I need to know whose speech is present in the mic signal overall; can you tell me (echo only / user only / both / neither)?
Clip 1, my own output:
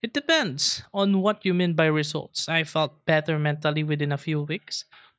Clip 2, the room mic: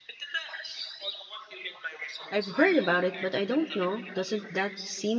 both